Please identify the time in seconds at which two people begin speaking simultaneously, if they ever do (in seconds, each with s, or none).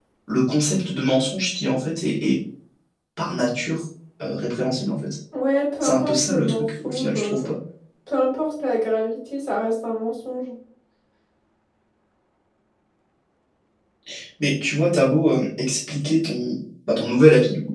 5.8 s